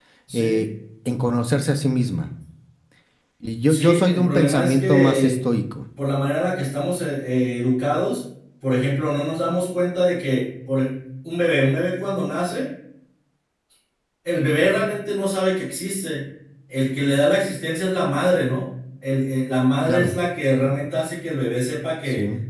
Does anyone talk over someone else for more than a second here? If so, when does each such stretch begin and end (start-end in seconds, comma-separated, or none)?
3.7-5.4